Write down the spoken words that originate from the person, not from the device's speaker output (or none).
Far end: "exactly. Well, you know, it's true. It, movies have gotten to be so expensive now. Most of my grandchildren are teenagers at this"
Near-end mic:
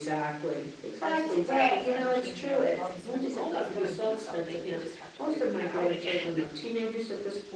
our society is ever changing, ever evolving. So there's always going to be something. They just have to figure that out again.